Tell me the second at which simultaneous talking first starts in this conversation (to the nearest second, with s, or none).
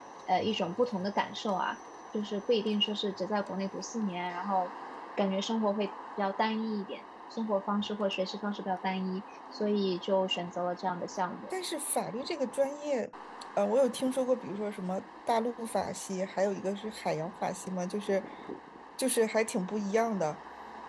none